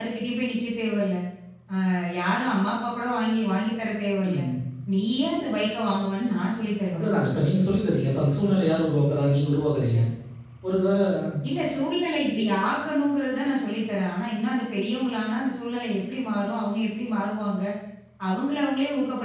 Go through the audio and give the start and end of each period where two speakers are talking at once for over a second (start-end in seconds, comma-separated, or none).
none